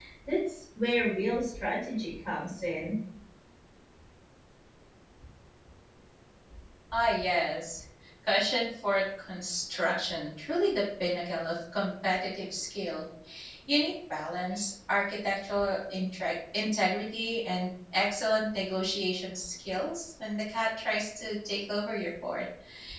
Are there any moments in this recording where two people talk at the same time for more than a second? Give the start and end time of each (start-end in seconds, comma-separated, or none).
none